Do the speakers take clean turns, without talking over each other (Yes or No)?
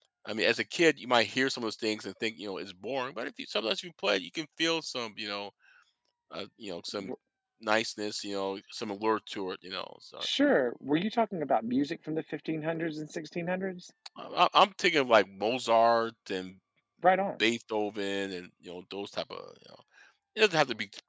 Yes